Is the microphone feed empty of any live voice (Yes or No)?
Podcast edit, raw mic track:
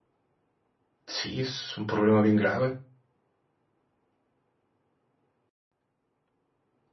No